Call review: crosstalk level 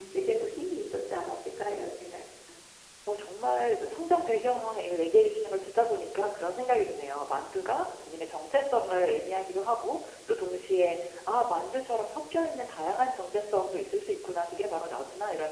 none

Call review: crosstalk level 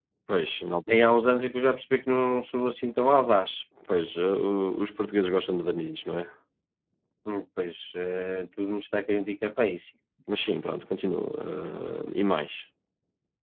none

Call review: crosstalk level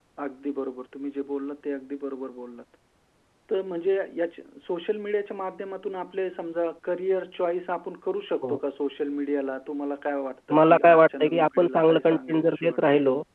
present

